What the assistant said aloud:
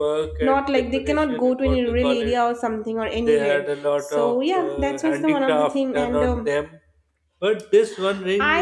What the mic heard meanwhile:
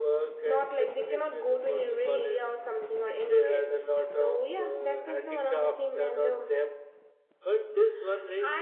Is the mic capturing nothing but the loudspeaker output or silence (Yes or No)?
Yes